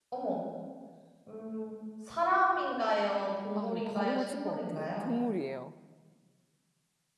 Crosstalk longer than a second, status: present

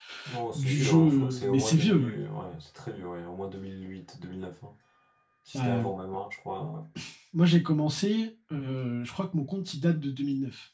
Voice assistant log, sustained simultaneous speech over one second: present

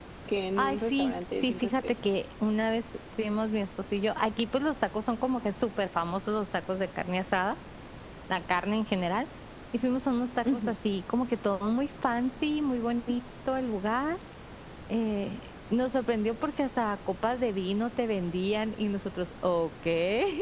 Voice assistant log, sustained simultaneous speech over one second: present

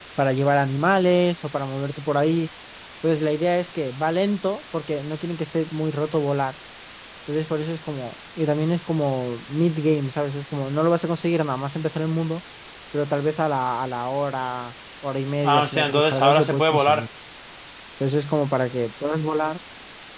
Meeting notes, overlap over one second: present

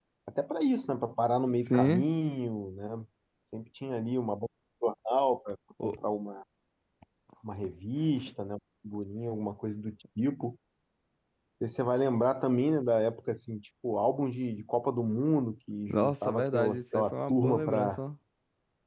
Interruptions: present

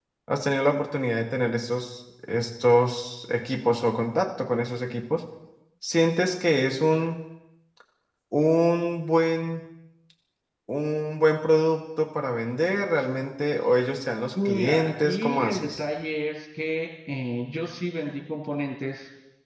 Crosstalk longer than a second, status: present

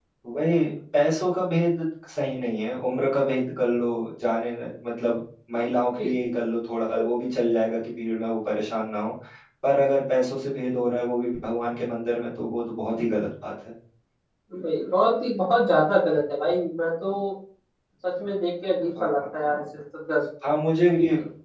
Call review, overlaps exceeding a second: none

